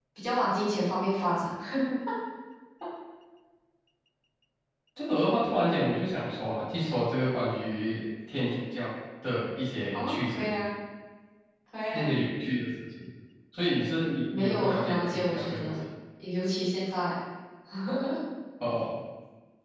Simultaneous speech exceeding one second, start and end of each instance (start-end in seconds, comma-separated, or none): 14.3-15.7